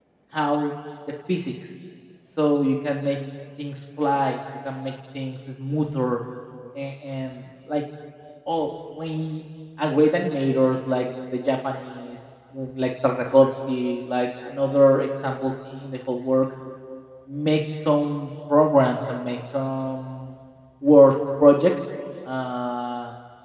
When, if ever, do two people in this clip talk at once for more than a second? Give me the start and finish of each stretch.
none

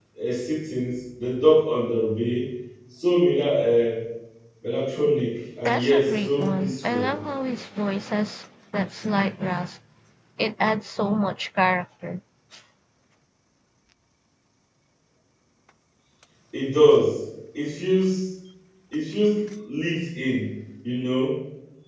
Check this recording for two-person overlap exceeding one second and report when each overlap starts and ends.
5.7-7.1

